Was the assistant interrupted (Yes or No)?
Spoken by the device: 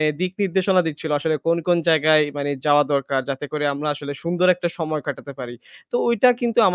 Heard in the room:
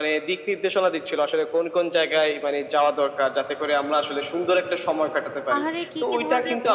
Yes